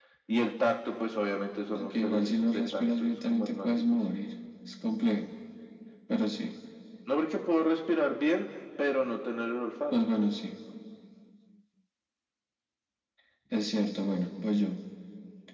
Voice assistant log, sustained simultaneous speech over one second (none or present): present